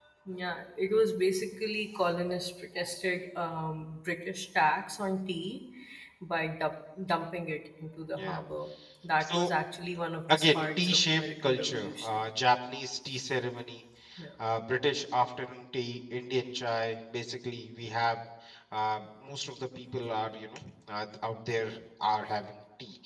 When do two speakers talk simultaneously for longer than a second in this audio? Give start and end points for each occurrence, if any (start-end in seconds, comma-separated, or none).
10.3-12.3